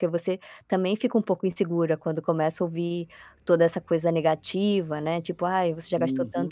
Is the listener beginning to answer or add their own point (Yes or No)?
No